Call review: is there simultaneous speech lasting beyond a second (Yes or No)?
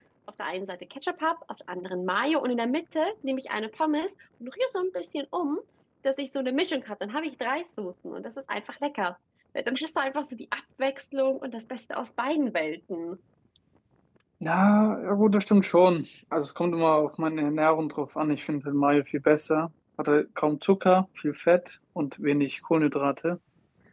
No